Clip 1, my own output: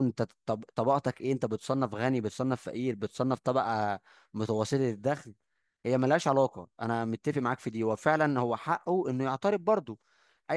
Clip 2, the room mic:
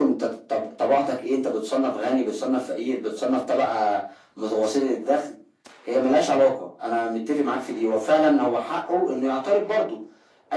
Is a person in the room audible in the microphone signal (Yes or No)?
No